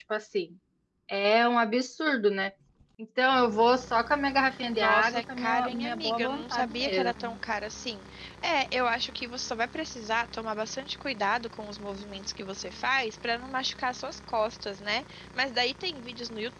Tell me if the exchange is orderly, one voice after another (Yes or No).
No